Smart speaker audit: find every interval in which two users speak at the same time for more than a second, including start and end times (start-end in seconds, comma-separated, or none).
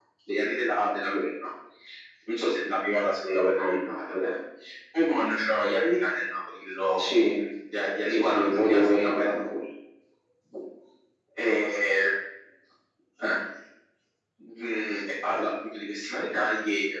8.1-9.3